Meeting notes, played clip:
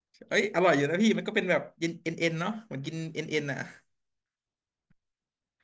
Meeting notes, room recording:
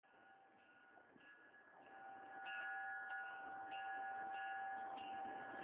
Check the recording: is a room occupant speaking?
No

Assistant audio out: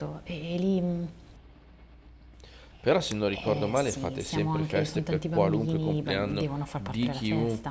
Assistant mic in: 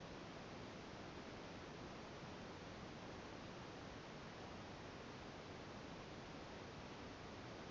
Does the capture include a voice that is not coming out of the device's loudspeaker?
No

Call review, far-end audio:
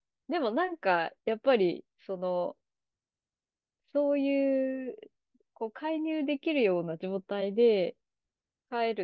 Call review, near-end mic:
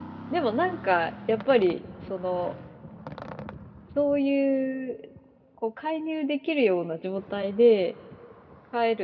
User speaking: No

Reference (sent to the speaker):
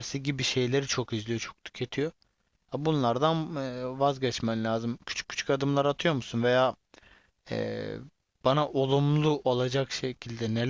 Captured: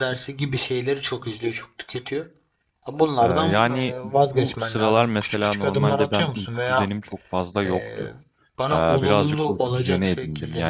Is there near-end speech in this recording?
Yes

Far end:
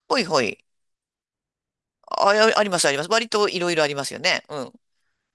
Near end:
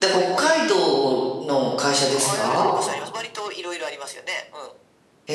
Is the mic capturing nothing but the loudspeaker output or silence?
No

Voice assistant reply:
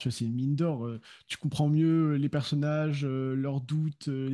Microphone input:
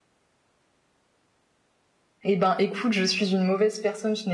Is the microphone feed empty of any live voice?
No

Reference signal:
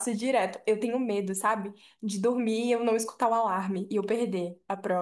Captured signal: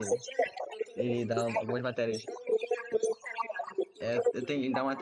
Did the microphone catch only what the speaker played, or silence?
No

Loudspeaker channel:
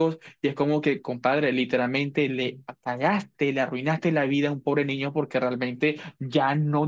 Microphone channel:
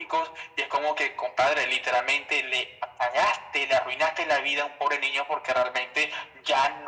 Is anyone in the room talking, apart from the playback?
No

